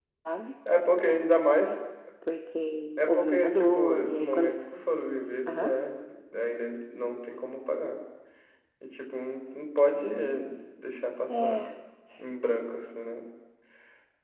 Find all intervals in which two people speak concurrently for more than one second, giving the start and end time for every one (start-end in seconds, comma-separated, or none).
3.0-4.5